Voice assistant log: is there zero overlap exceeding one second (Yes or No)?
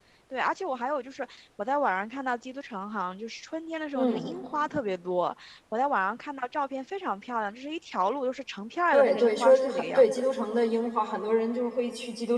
No